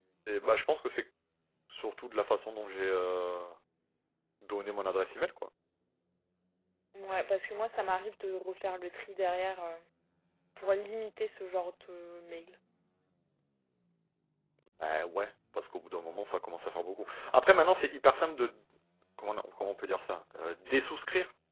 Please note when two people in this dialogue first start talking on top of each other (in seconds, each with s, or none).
none